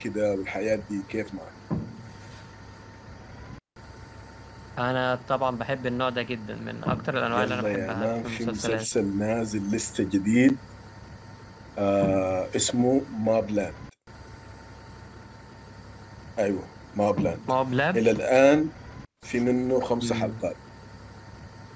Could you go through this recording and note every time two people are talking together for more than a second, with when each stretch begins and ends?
7.3-8.9

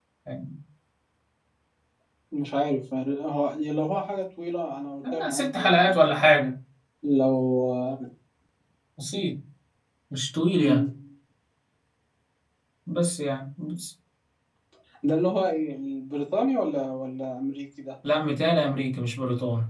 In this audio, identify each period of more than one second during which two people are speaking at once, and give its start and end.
5.1-6.3

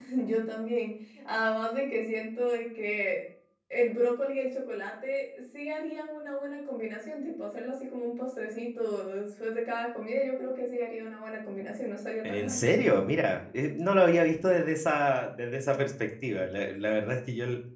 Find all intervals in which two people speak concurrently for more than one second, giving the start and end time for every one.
none

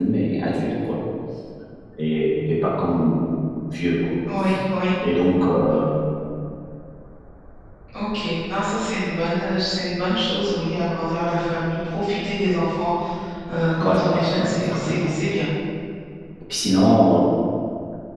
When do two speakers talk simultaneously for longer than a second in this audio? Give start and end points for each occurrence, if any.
13.8-15.1

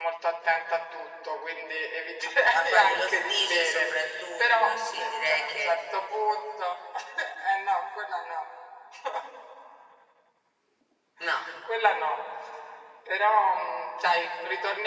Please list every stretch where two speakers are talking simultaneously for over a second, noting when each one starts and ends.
2.4-3.9, 4.4-5.8

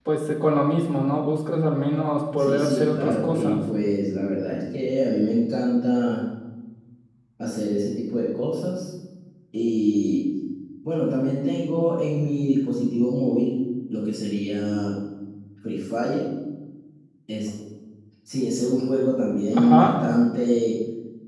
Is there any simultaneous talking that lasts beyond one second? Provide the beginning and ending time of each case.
2.4-3.6

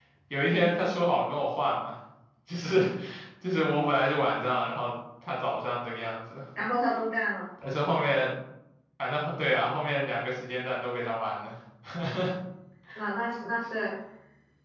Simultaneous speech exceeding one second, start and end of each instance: none

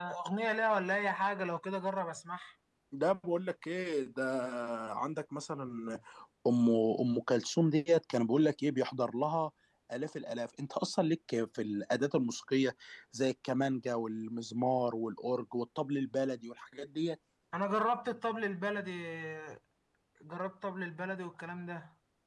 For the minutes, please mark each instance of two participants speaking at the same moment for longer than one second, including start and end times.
none

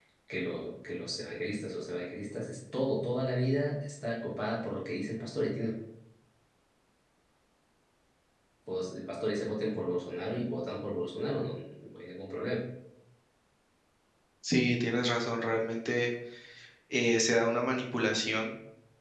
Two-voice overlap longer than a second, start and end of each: none

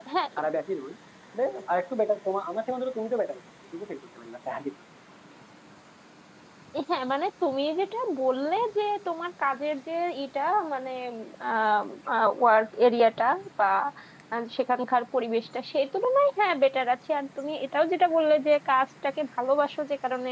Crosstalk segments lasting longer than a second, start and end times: none

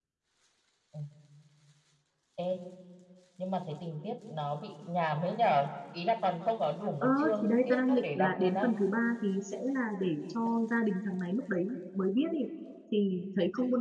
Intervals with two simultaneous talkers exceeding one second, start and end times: 7.0-8.7

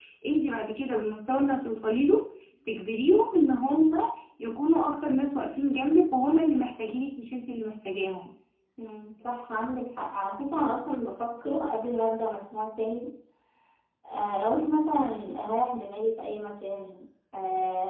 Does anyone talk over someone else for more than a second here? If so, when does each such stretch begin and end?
none

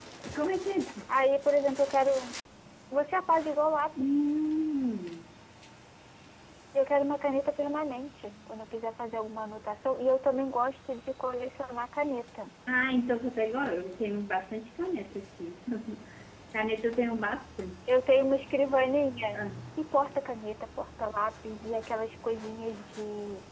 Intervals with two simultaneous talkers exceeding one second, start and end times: none

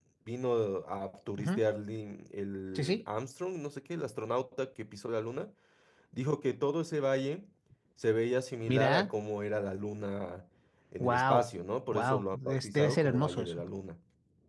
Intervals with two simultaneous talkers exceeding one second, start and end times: 11.9-13.6

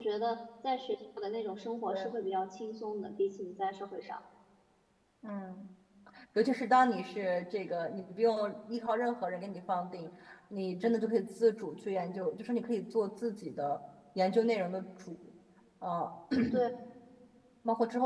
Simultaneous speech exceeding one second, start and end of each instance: none

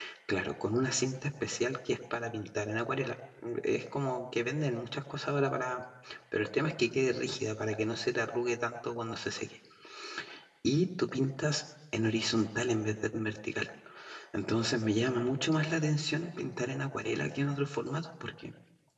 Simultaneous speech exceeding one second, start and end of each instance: none

